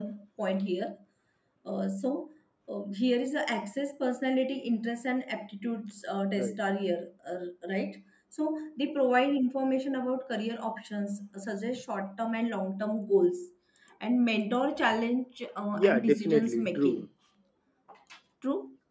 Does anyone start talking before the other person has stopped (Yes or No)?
Yes